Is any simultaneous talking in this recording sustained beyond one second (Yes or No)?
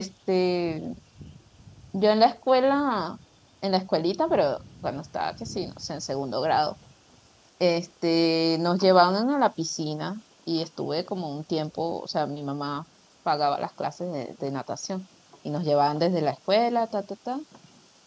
No